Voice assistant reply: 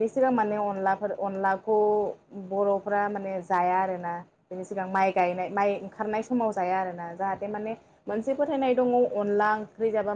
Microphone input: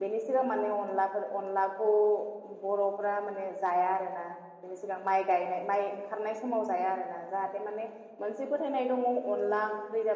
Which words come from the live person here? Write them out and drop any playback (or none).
none